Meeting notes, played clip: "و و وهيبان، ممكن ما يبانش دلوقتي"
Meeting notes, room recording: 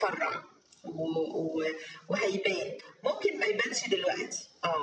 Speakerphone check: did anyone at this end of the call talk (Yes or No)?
No